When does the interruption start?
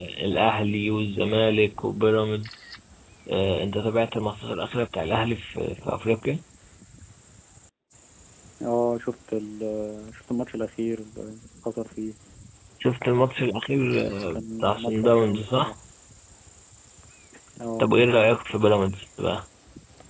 14.4 s

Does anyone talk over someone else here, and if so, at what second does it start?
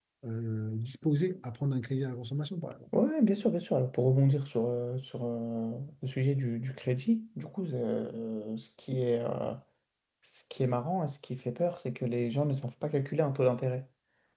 none

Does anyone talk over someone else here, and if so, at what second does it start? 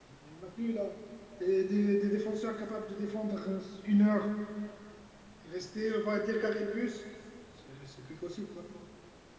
none

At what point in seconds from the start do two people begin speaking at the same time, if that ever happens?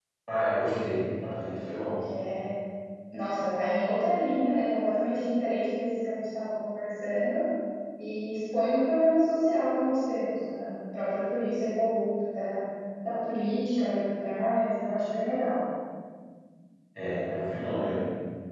none

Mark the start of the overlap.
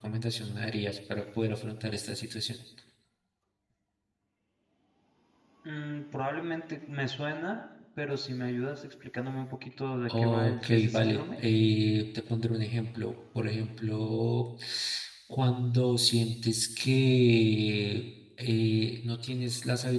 10.1 s

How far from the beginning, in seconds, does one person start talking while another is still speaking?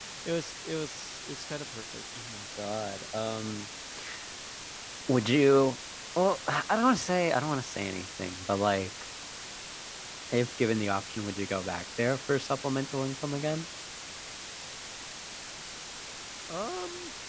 none

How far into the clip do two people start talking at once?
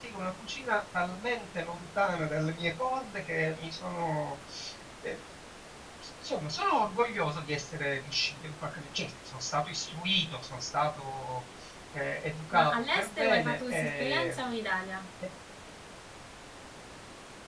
12.5 s

